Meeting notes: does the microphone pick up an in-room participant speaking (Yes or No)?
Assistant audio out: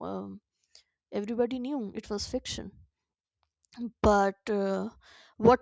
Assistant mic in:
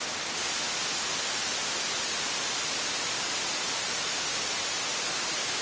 No